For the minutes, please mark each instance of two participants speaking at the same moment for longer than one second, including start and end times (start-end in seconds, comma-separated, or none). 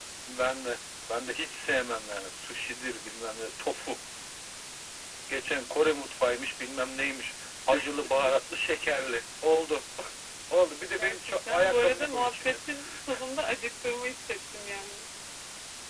11.0-12.6